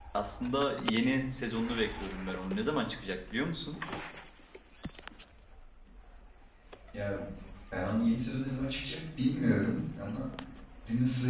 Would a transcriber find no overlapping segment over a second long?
Yes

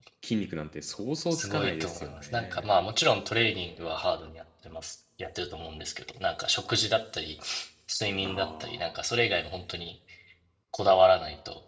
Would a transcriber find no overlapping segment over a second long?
No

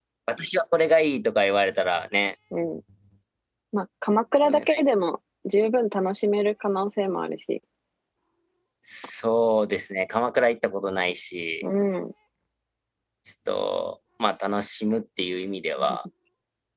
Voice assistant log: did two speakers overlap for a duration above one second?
No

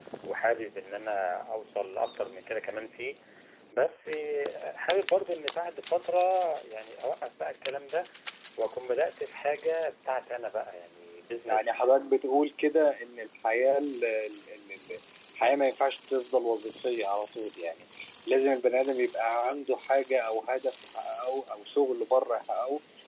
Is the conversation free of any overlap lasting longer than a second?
Yes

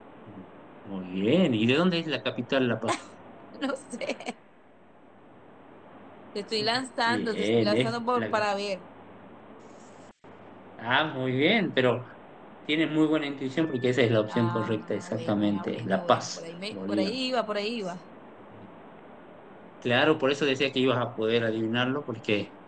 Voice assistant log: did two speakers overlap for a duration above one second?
Yes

